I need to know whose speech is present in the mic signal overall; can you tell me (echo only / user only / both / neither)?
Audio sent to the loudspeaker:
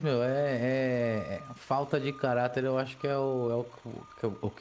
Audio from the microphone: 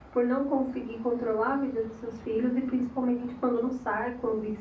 user only